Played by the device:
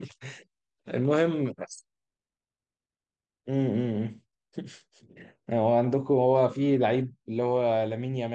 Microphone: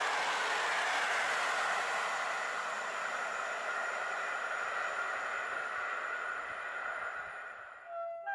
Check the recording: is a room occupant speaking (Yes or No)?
No